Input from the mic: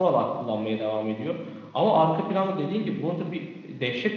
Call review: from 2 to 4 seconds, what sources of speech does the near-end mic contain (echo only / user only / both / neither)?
user only